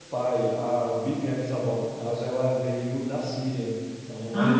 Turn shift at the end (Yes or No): No